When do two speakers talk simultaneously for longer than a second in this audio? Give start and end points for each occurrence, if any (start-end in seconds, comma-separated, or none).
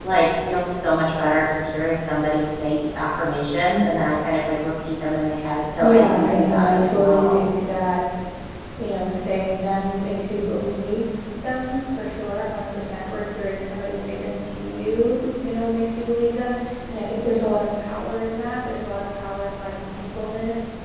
5.8-7.4